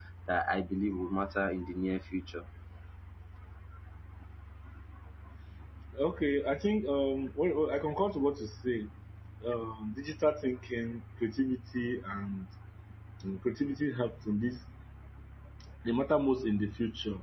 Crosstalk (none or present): none